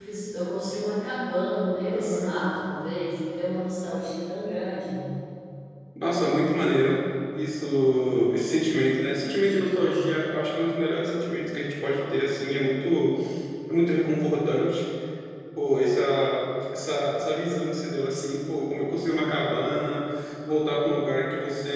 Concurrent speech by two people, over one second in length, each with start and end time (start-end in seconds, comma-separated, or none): none